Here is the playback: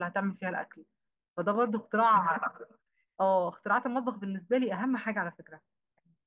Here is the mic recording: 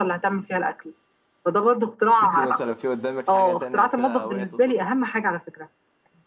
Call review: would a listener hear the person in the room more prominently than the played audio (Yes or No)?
No